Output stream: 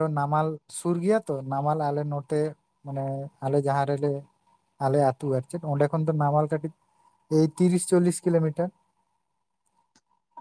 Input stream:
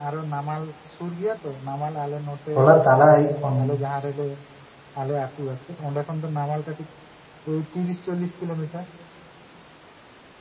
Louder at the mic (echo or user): user